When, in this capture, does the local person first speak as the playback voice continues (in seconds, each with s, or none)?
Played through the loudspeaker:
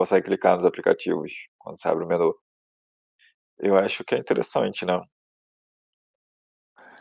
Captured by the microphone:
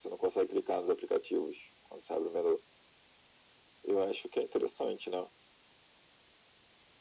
none